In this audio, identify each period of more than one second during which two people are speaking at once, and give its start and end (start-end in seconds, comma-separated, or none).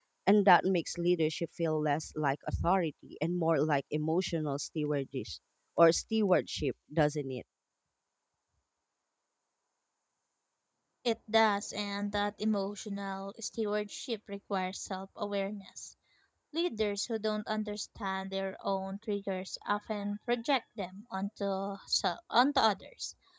none